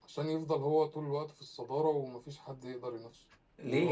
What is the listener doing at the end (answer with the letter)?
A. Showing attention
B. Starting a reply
B